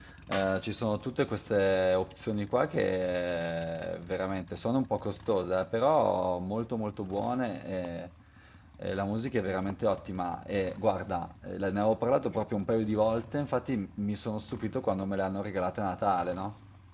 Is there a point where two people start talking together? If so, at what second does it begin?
none

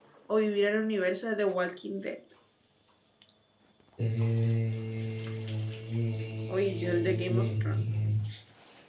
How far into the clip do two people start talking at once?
6.5 s

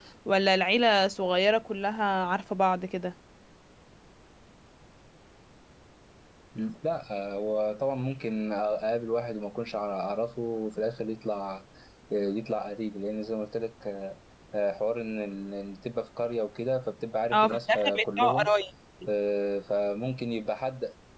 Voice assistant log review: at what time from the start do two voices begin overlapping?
17.3 s

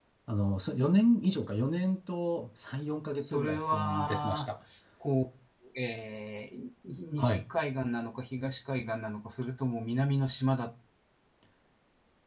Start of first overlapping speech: 3.1 s

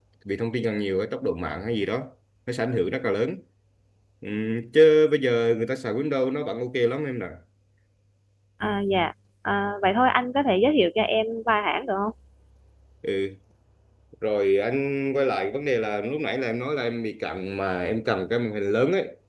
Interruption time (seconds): none

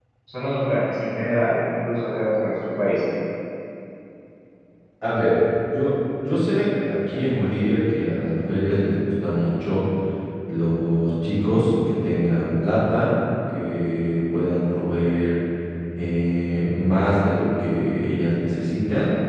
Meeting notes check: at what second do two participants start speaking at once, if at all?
none

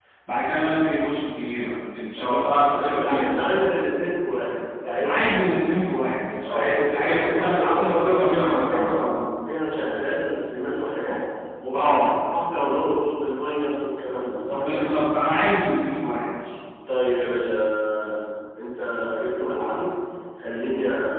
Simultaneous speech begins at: 2.1 s

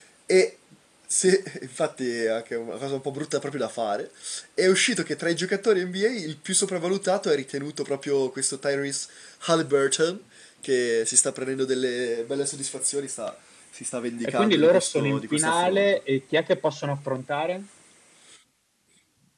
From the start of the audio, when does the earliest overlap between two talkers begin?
14.2 s

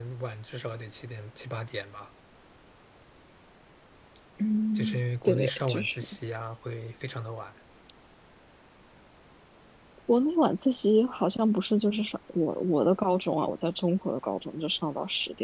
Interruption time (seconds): 4.8 s

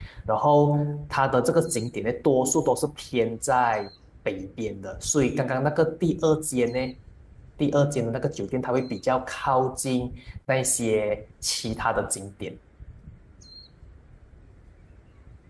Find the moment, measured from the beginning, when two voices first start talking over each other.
none

